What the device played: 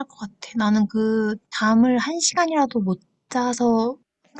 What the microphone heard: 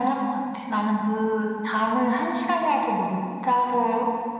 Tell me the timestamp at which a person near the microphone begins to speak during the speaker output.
none

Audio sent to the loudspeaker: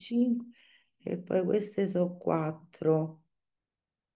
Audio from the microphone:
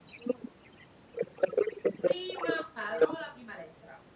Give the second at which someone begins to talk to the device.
2.0 s

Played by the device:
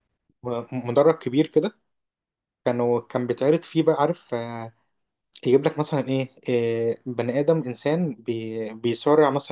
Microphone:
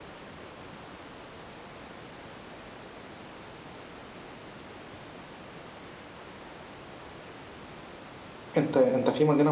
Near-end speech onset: 8.6 s

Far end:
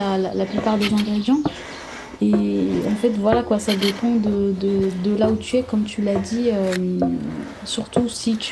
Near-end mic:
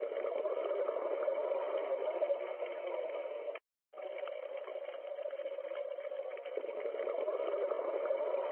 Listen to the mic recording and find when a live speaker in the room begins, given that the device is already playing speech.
none

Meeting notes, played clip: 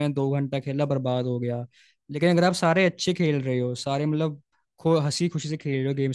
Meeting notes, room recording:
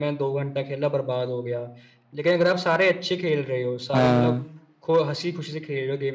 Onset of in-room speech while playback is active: 3.9 s

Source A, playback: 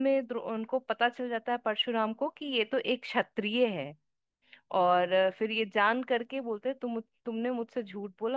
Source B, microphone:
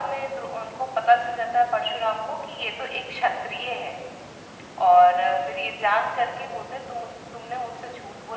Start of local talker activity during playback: none

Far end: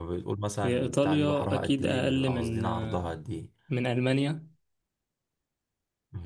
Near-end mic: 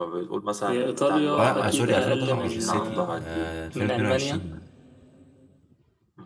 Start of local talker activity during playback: 1.4 s

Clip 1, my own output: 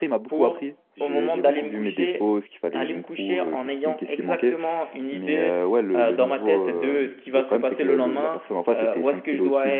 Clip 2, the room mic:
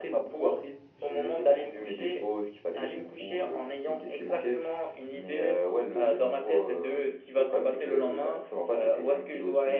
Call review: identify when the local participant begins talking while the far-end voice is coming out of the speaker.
none

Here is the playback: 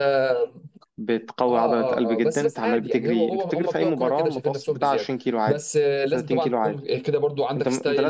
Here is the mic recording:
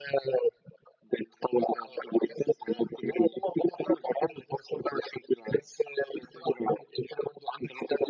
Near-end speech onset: none

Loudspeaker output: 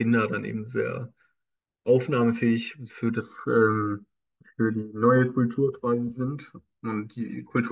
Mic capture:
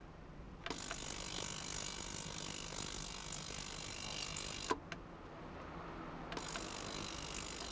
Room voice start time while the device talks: none

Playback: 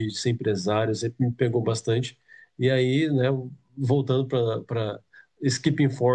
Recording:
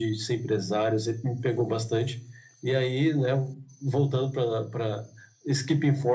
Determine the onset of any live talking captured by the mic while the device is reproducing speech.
none

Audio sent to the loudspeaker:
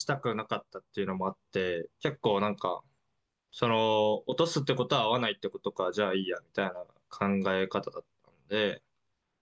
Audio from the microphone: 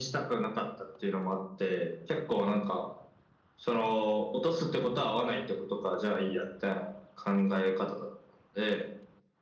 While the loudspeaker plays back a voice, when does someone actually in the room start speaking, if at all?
none

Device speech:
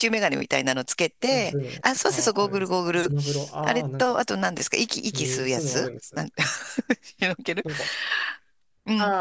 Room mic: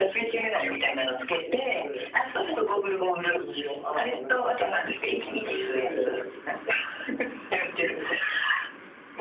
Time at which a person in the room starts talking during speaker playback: none

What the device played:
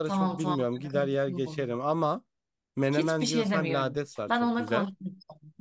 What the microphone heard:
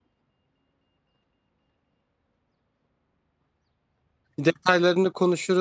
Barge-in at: 4.4 s

